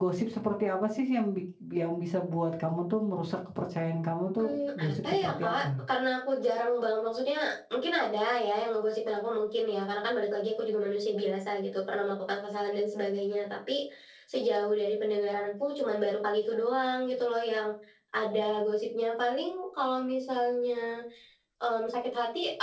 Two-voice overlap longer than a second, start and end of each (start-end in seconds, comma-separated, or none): 4.4-5.6